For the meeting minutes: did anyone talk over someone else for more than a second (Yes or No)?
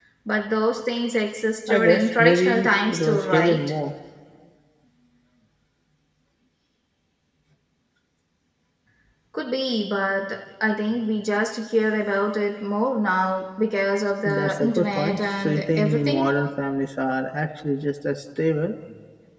Yes